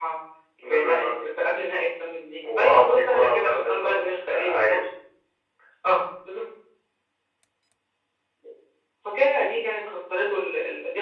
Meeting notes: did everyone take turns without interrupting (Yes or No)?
No